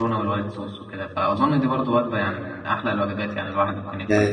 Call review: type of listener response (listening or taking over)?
taking over